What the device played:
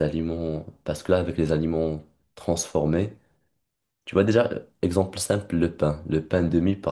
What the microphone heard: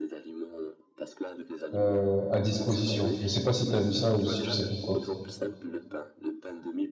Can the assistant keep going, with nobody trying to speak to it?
No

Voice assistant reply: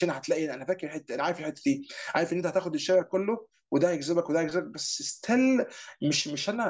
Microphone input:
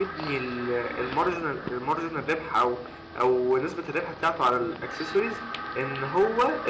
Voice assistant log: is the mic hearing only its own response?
No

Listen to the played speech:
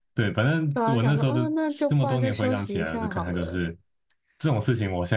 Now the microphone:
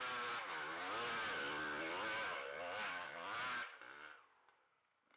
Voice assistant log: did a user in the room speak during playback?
No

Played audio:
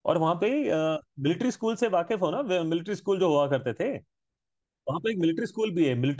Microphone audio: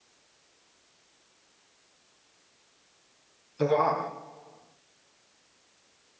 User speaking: Yes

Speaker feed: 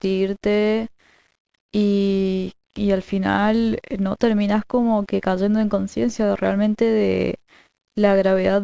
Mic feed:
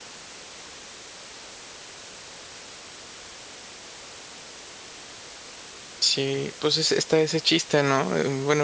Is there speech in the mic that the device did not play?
Yes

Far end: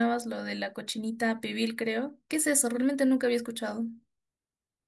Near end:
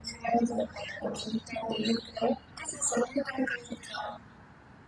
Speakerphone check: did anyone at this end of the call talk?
No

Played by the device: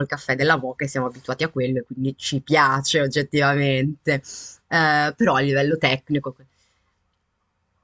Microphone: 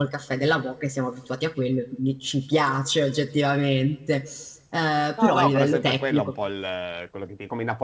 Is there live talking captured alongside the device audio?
Yes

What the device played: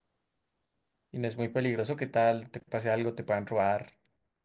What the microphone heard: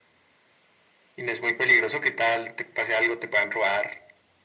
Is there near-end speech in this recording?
No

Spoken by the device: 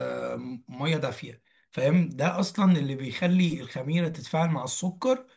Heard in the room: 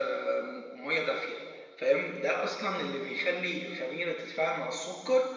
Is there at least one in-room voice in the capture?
No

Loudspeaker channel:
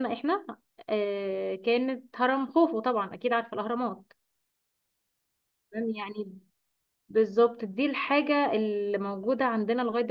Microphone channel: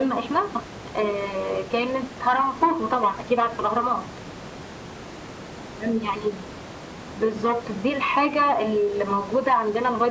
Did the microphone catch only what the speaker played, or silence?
Yes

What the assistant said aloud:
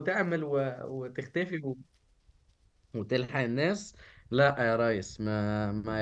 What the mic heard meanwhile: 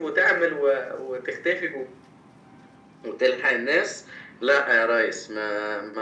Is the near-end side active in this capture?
No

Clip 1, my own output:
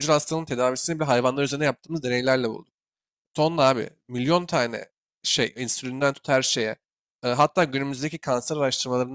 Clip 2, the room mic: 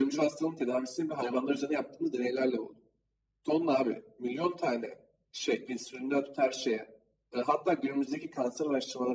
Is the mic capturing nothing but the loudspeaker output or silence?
Yes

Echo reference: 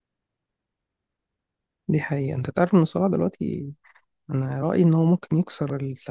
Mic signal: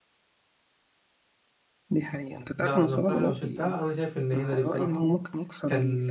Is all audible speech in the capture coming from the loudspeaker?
No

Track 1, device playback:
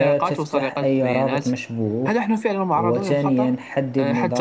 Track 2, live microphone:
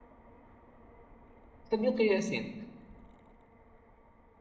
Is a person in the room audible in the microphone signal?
Yes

